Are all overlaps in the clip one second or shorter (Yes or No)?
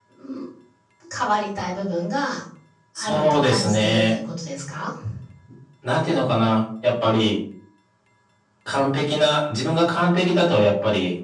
No